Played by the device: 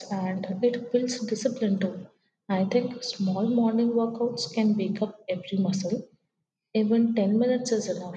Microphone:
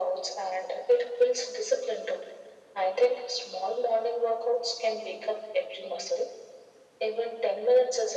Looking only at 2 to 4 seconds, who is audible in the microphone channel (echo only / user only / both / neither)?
echo only